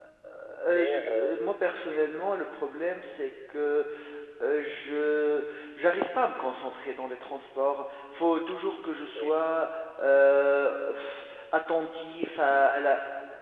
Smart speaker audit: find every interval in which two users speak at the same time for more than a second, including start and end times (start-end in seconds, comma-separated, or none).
0.7-2.1